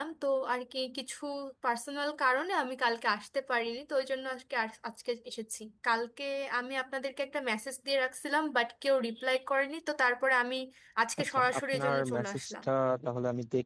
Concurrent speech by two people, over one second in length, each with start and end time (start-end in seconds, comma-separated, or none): 11.2-12.6